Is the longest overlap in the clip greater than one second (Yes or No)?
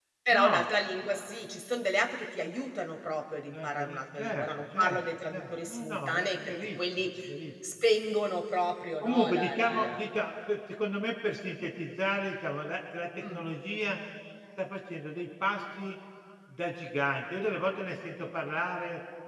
Yes